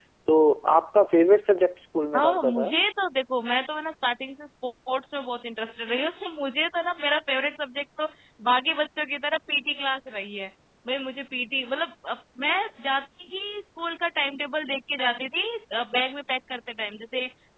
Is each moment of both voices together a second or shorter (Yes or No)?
Yes